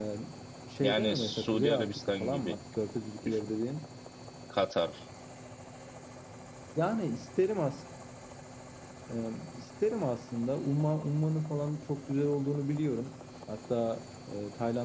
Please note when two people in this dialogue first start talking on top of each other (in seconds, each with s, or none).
0.8 s